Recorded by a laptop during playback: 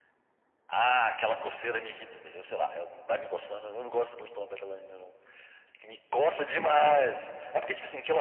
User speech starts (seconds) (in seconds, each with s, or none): 6.5 s